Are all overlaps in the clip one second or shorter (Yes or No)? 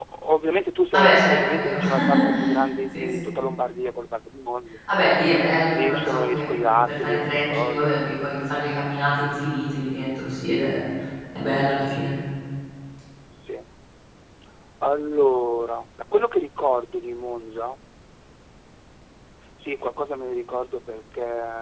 No